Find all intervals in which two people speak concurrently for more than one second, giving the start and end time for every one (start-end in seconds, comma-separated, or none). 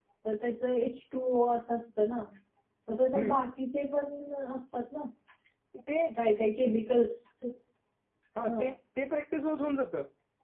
none